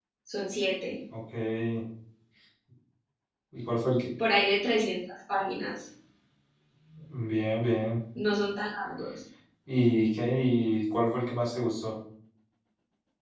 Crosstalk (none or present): none